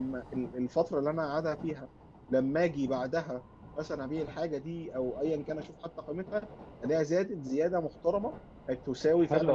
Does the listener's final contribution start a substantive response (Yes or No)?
Yes